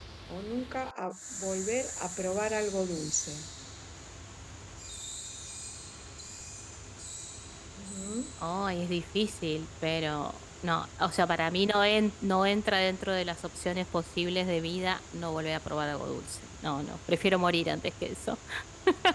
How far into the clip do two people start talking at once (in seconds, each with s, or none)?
none